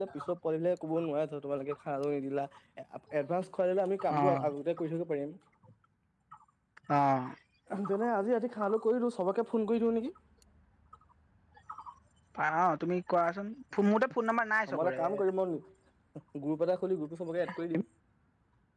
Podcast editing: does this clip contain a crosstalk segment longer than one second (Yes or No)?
No